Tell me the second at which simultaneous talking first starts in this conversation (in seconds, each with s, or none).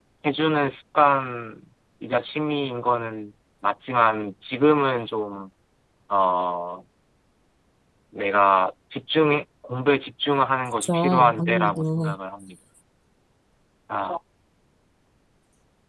10.8 s